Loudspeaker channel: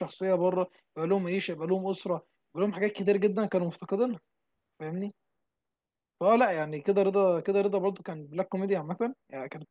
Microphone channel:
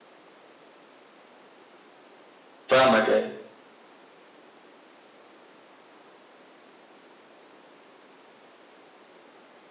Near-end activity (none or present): present